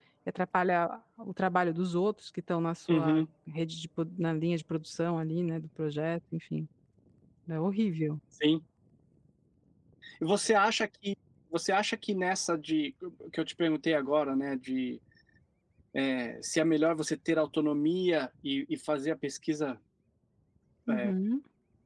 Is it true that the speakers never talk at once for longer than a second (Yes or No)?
Yes